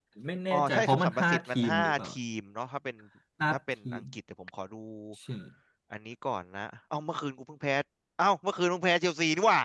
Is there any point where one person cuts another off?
Yes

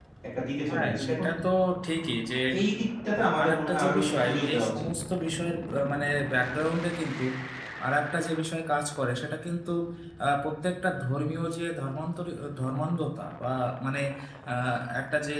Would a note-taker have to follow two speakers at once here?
Yes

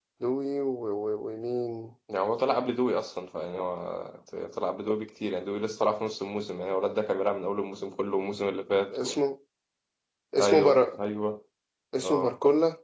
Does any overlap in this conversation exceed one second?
No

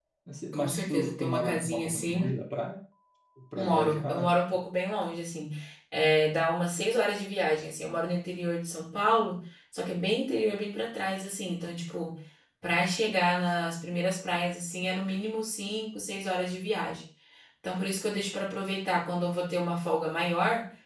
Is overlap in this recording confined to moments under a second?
No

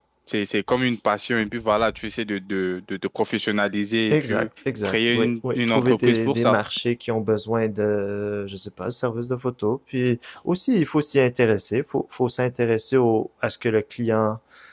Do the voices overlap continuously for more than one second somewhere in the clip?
Yes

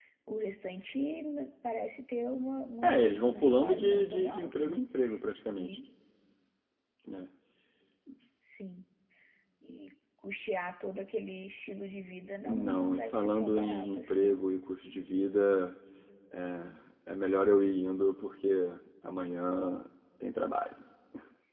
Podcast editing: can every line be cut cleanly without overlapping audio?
No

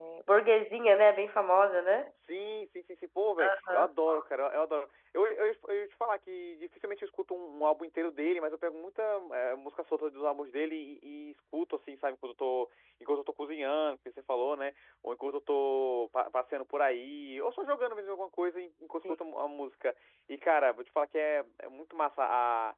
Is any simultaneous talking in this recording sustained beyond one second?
No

